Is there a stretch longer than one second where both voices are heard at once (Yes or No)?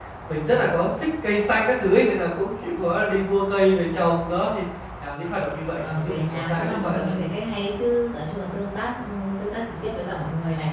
Yes